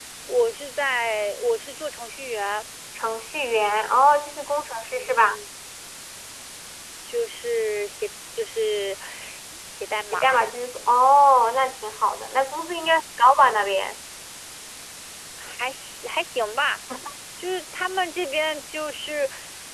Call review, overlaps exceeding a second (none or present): none